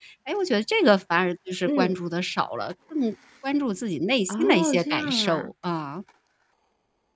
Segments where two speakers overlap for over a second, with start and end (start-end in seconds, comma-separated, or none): 4.3-5.5